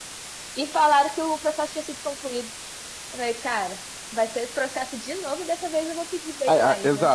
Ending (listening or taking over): taking over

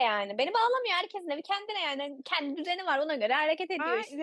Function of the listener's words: taking over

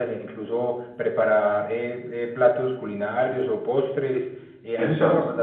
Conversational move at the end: listening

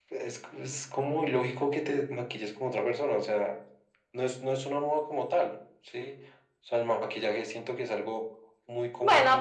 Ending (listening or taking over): taking over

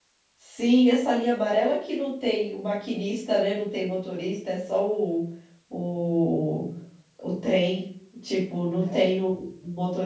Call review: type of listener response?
listening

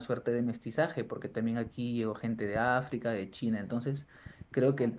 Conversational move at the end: listening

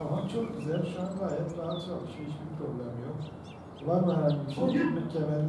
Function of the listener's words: listening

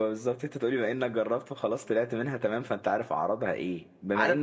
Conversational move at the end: listening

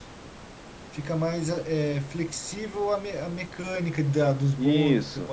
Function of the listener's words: taking over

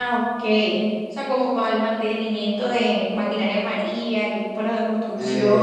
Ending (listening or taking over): taking over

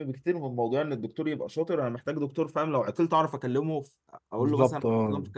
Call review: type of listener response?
taking over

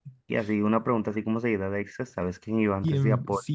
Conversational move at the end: taking over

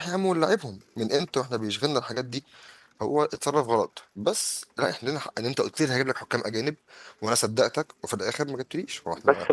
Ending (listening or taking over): taking over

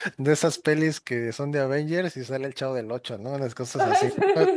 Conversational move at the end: taking over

